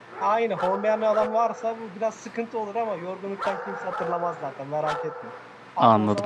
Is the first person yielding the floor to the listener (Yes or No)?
No